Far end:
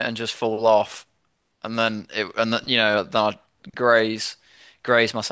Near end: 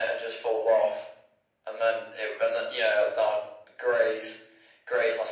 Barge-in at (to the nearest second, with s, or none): none